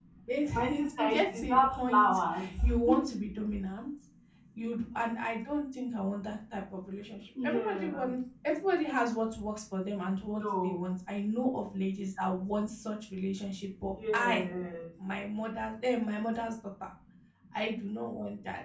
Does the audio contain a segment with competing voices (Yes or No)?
Yes